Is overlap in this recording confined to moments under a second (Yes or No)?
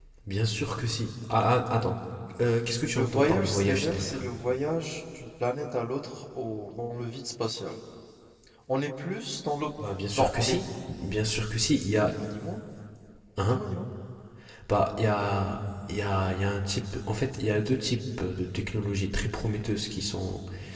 No